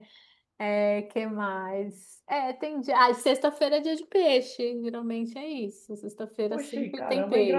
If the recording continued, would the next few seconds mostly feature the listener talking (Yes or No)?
Yes